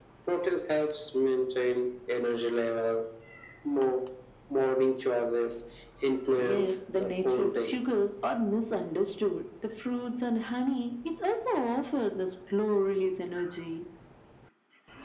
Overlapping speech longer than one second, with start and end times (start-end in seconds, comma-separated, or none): 6.4-7.7